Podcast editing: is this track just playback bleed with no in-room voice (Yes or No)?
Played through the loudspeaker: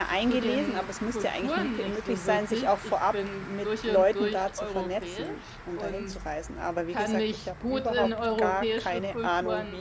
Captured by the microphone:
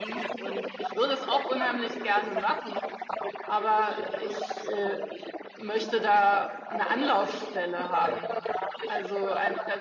No